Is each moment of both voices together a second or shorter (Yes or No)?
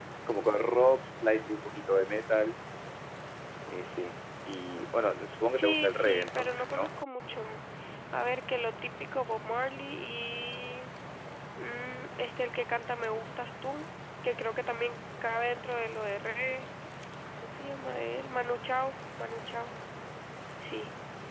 No